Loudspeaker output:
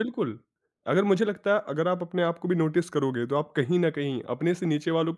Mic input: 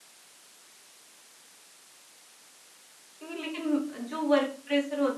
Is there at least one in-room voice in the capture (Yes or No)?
Yes